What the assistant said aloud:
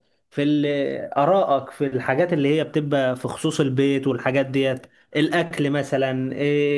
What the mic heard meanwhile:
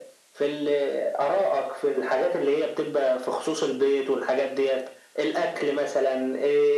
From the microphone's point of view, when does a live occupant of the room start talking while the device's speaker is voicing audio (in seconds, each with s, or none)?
none